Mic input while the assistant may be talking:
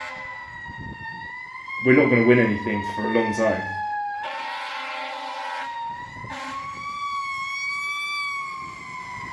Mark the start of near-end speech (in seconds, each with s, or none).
1.8 s